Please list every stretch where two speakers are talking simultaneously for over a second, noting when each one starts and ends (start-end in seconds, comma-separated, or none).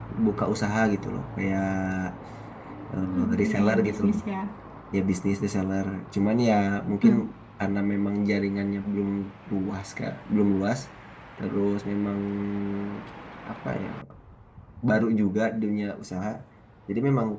2.9-4.2